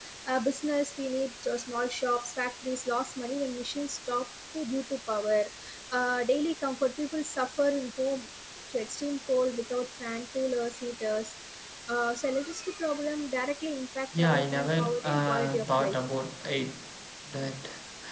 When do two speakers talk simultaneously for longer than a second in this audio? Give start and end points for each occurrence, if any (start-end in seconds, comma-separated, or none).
14.2-15.9